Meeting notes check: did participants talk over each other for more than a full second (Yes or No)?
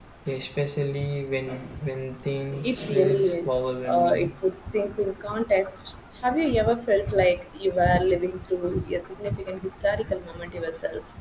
Yes